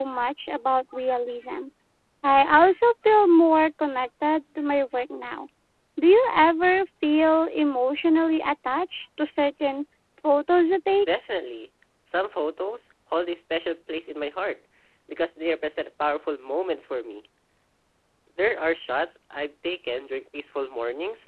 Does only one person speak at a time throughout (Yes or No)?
Yes